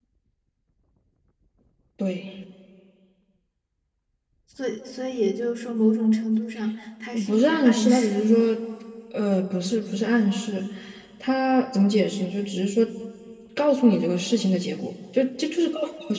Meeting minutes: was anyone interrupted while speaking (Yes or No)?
Yes